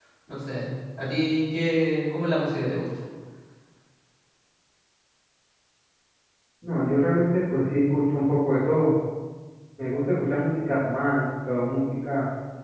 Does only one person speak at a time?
Yes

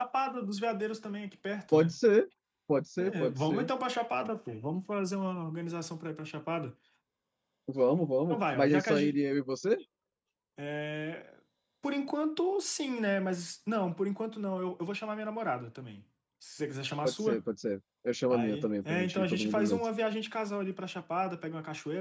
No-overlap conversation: No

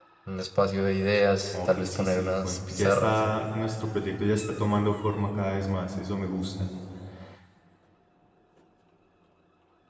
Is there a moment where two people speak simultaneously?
Yes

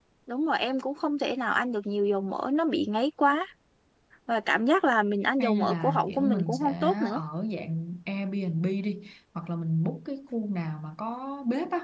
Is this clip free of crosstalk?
No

